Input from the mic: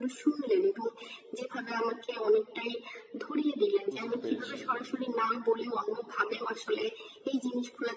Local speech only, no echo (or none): বুঝতে পেরেছি।